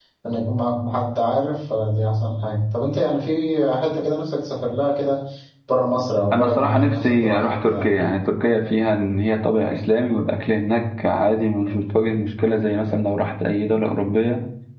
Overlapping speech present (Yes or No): Yes